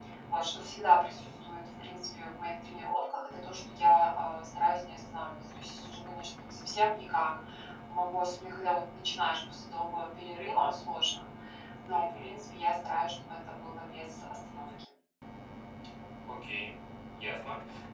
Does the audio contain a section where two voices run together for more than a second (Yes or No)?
No